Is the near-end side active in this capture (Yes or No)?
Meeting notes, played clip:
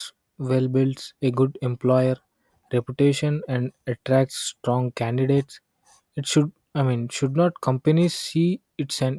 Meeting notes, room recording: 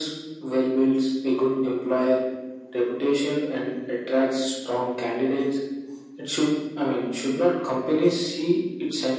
No